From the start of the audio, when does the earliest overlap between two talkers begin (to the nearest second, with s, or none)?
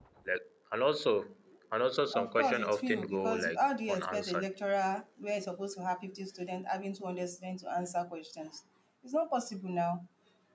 2 s